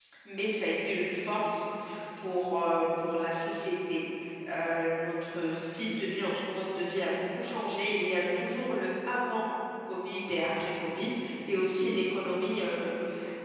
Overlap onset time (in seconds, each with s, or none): none